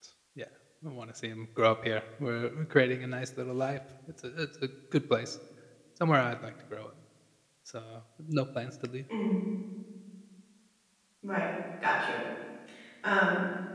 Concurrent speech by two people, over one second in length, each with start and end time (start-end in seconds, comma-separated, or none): none